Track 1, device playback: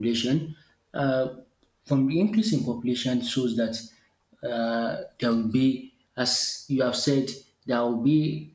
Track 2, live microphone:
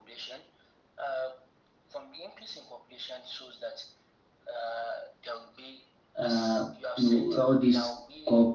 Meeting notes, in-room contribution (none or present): present